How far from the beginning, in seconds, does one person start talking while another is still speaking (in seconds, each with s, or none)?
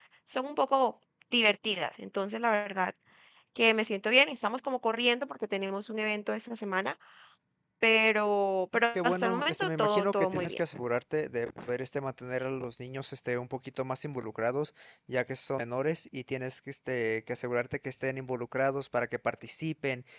9.0 s